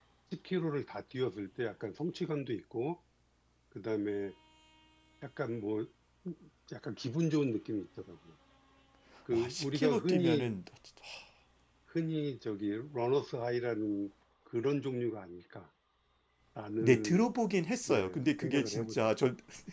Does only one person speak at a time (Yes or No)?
No